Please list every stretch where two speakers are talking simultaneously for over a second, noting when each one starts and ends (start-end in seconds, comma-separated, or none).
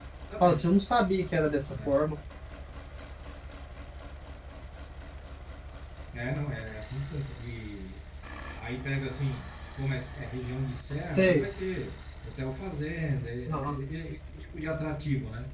none